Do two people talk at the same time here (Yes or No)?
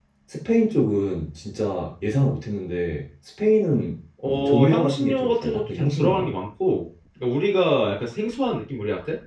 Yes